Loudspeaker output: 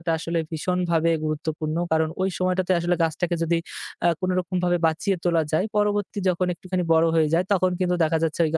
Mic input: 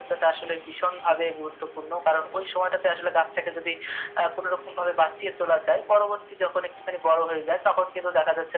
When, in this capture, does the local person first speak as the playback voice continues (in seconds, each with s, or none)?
none